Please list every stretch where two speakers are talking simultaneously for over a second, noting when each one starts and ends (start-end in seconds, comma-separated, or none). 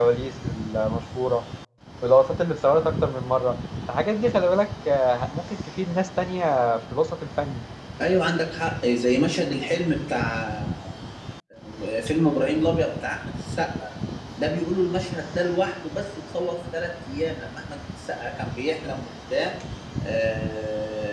none